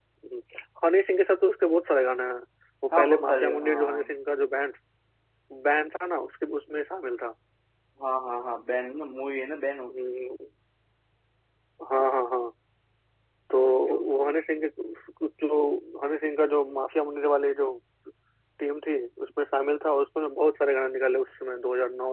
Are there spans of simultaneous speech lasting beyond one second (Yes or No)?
Yes